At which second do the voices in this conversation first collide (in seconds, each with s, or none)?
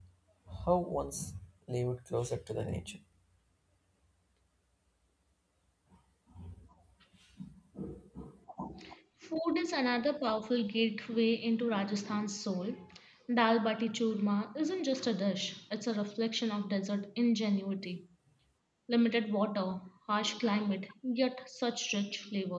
none